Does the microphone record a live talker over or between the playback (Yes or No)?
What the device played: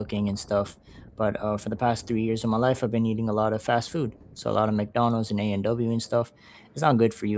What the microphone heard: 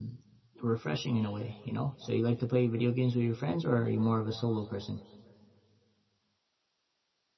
Yes